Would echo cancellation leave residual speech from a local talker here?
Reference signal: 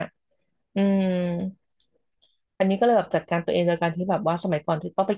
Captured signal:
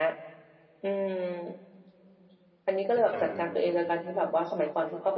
Yes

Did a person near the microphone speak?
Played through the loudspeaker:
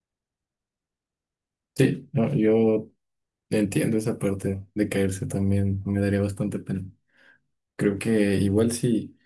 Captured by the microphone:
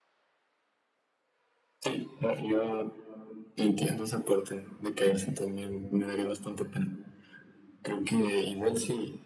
No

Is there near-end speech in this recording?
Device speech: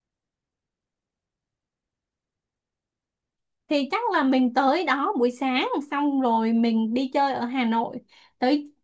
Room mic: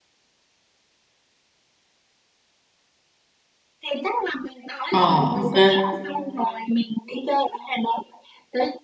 Yes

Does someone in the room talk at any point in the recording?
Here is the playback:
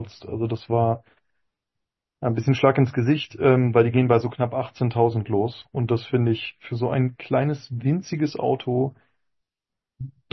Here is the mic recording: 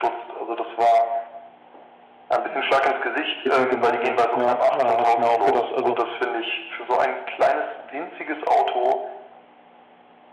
Yes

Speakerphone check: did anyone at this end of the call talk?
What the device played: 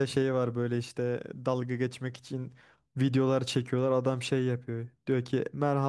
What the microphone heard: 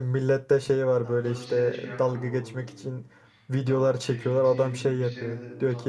Yes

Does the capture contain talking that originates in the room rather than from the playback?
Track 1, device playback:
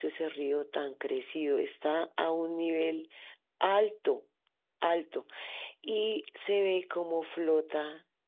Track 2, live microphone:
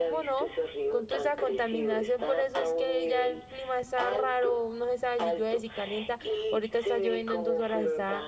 Yes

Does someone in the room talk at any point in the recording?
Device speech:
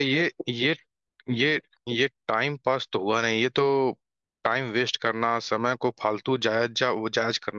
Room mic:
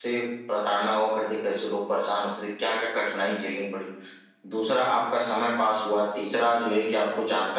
Yes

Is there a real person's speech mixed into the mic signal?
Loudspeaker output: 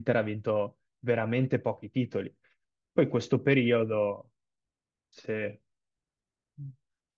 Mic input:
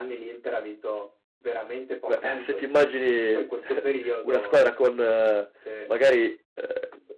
Yes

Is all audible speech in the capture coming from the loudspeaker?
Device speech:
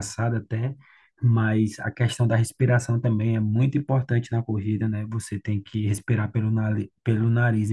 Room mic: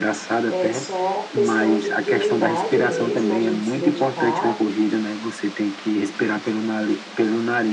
No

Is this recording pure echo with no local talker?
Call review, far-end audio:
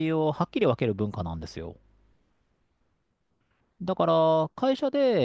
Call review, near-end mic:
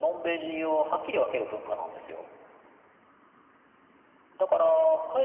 Yes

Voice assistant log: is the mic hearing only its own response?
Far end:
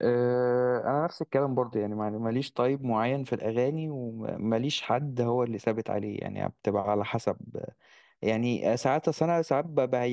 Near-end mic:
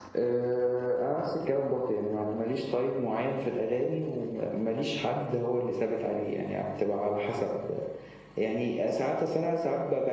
Yes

